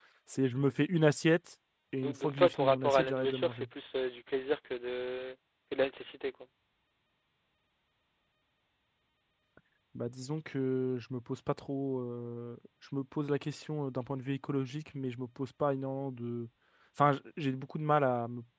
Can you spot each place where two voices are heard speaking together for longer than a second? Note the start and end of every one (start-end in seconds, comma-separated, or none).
2.0-3.7